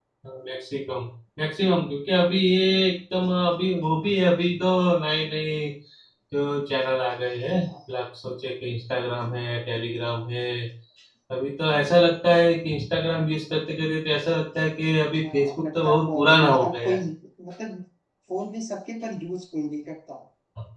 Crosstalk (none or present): present